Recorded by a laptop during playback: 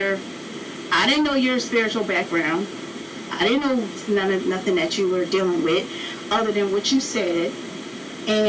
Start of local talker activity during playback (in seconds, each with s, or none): none